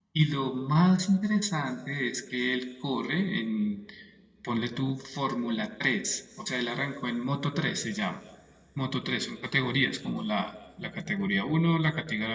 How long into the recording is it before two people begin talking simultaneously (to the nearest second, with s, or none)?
none